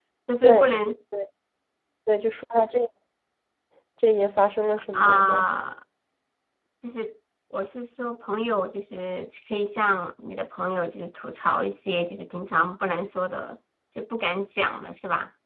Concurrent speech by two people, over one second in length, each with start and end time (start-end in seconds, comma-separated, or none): none